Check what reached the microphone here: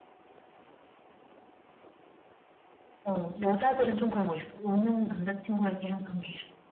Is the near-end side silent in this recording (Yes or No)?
Yes